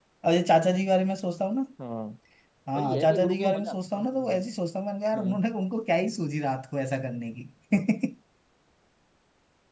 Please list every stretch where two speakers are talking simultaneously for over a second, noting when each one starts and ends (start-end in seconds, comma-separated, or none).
2.8-4.4